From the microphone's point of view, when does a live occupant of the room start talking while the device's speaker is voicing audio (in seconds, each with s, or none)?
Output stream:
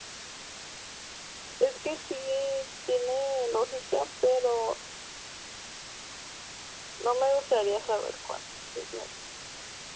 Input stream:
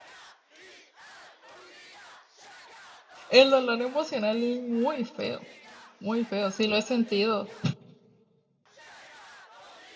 3.3 s